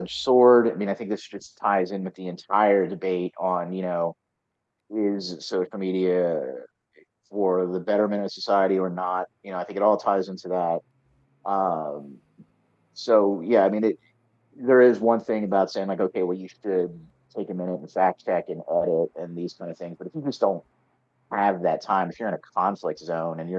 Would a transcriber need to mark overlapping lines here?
No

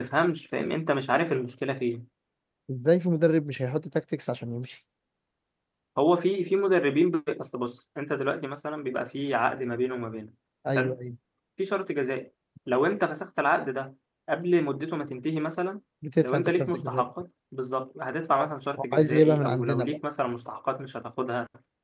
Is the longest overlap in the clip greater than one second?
Yes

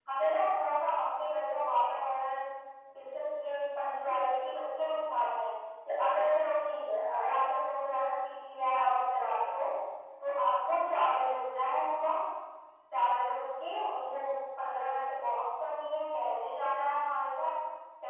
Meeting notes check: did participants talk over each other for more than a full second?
No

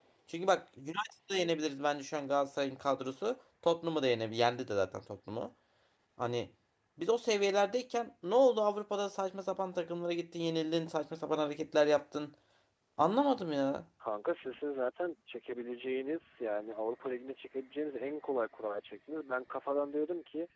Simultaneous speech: No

